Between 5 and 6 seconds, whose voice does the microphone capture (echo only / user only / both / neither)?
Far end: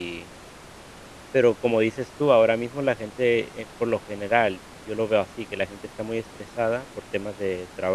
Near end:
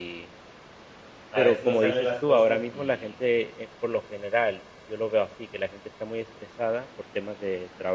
echo only